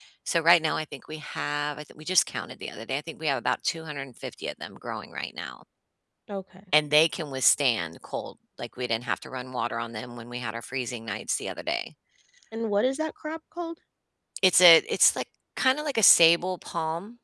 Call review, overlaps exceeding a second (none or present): none